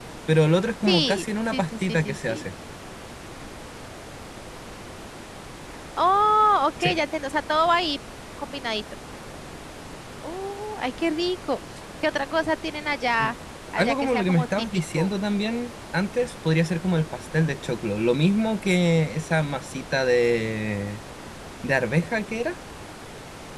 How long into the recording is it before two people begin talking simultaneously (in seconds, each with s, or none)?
0.8 s